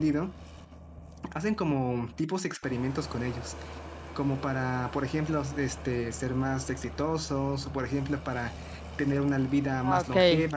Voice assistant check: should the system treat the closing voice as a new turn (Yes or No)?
No